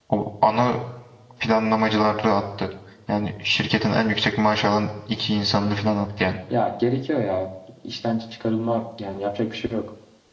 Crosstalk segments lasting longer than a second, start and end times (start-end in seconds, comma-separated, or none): none